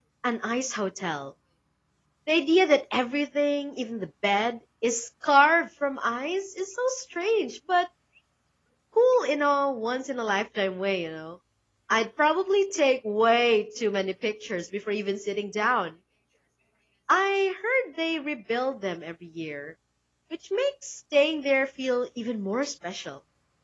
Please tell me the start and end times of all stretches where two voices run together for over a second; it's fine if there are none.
none

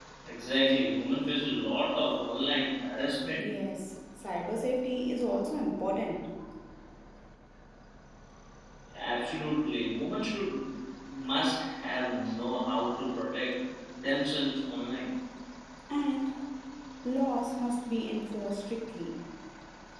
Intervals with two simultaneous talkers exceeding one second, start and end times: none

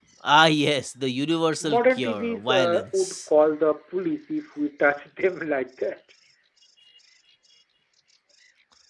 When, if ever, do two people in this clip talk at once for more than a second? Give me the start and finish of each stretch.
1.6-3.1

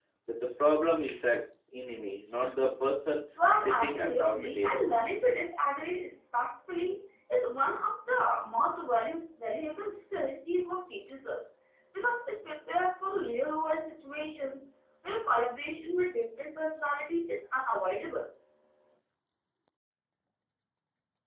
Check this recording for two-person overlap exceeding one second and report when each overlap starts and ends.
3.6-4.9

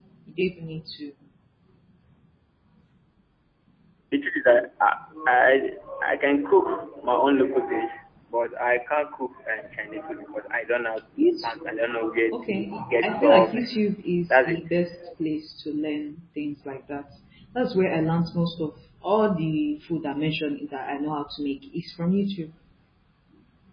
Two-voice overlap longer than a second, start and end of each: 12.3-13.8

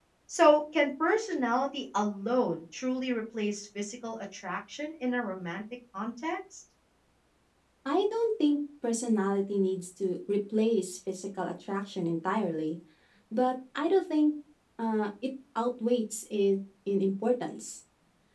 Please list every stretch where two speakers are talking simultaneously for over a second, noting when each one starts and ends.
none

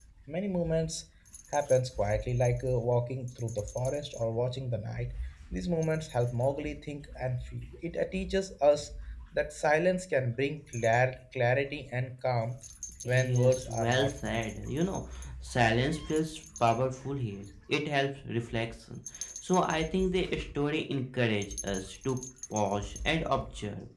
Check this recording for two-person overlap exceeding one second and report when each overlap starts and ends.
13.0-14.5

